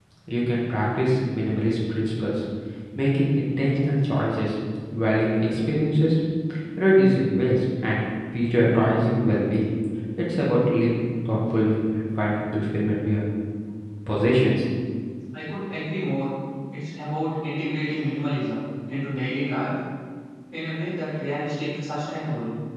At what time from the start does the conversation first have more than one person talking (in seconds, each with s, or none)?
none